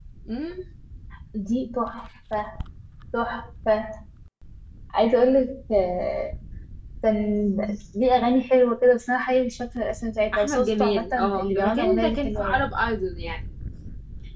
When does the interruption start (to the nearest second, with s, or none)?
10 s